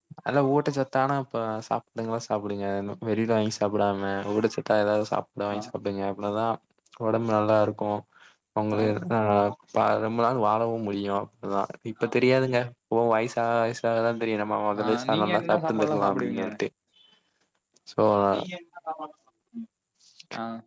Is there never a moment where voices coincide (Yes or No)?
No